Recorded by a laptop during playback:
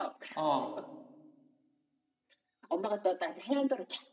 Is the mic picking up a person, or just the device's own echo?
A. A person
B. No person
A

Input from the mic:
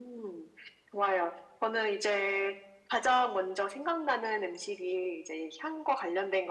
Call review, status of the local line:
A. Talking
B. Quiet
B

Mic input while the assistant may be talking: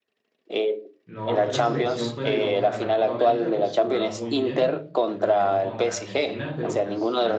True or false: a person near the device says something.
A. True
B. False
A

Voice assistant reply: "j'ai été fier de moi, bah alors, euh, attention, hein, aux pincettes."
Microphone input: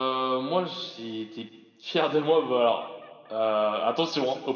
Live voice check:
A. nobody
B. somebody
A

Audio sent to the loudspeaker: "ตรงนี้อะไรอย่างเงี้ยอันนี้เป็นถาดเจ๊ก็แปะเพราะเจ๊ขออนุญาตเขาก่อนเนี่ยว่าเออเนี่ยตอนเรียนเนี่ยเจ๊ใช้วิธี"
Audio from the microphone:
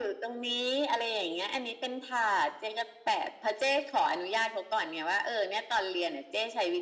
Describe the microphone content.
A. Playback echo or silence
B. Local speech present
A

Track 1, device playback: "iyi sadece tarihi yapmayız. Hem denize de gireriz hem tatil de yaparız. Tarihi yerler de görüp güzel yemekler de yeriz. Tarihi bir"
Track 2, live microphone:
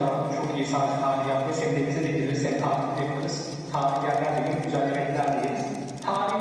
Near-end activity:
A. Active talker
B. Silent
B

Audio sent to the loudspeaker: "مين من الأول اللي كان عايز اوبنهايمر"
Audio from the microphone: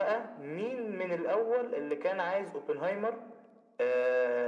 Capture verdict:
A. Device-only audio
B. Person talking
A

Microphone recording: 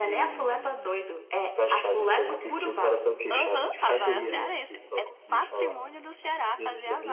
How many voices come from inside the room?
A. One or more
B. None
A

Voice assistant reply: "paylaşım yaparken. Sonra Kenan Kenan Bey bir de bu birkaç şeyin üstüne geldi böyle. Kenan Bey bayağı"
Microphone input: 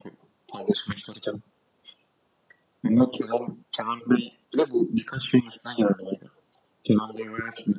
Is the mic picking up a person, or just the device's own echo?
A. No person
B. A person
A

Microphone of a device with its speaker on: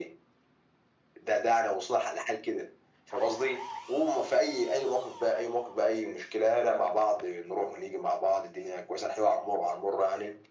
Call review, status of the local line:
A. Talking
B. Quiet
B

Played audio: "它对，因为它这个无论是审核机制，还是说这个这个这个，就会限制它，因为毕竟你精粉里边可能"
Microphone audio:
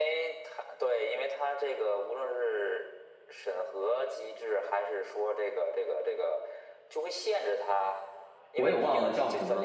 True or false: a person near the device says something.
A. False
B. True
B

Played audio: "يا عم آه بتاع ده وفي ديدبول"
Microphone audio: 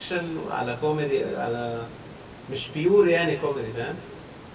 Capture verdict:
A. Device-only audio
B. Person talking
B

